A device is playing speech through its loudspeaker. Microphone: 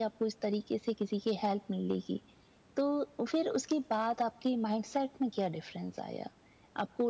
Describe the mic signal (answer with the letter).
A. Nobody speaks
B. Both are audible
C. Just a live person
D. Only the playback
D